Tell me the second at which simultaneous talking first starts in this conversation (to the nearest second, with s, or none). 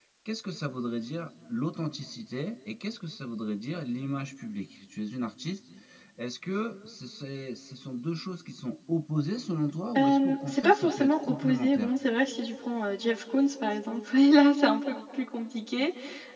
10 s